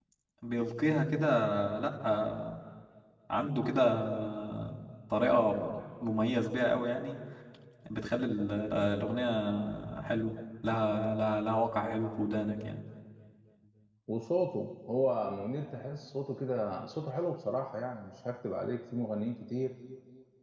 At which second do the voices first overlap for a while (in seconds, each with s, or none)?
none